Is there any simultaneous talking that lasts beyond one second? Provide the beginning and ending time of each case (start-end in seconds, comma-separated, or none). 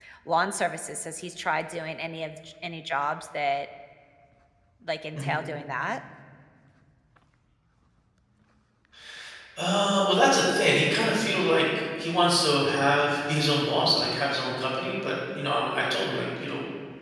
none